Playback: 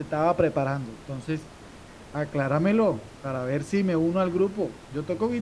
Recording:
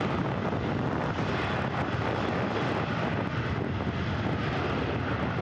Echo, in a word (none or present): none